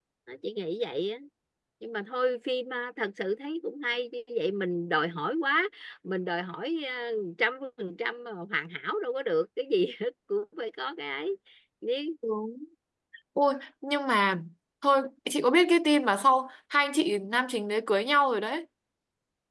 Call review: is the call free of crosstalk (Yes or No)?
Yes